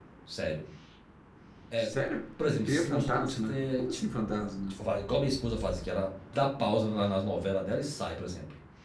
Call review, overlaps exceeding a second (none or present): present